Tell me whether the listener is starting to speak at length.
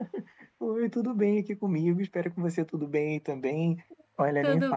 No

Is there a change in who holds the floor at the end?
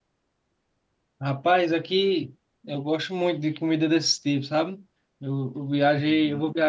No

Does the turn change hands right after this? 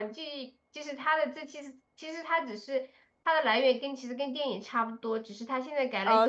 Yes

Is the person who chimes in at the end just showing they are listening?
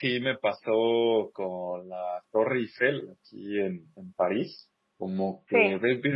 Yes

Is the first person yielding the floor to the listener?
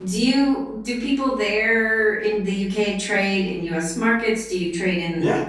Yes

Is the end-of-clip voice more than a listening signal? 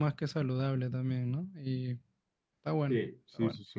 Yes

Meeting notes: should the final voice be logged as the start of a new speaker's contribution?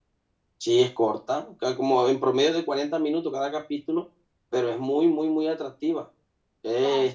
No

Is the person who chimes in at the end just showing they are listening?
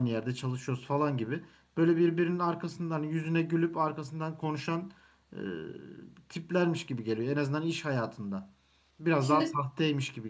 Yes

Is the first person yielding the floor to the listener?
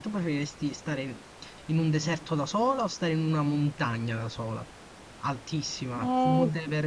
Yes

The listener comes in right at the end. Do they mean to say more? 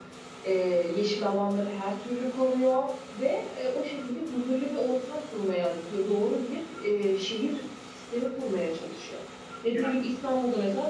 No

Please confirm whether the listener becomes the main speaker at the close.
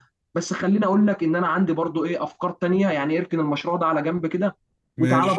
No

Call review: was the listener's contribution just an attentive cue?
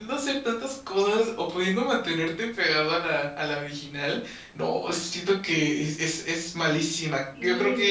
No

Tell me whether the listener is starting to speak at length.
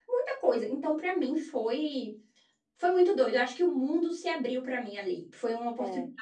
No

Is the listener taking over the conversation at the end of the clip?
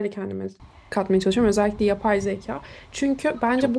No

